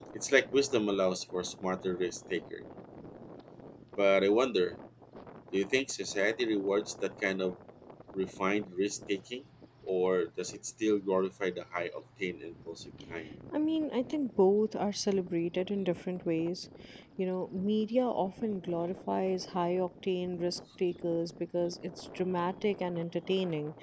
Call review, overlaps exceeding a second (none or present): none